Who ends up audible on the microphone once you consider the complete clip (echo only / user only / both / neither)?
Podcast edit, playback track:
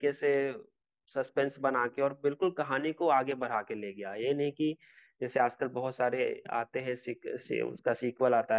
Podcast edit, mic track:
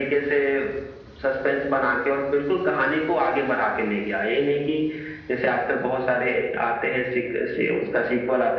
echo only